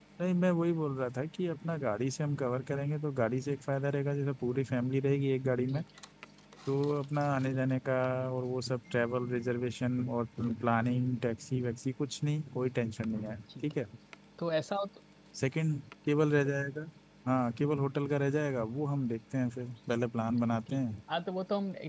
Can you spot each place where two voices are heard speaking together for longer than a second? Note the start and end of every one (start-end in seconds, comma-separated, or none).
none